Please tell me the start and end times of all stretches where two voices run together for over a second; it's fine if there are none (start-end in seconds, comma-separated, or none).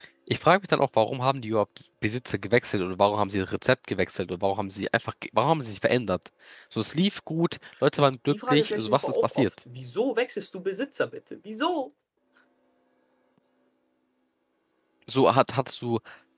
8.0-9.5